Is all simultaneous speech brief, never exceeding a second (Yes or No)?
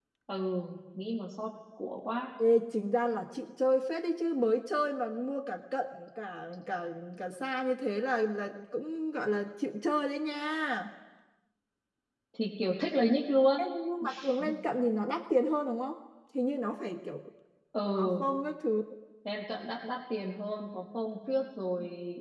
Yes